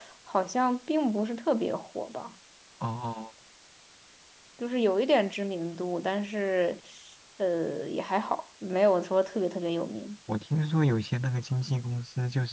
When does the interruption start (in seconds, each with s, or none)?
none